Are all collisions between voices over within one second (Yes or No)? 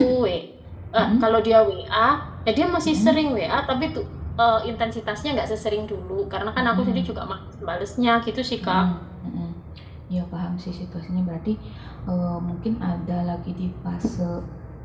Yes